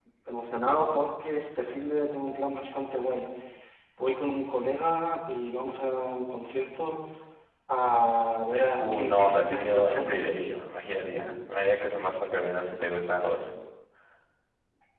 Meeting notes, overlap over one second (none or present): present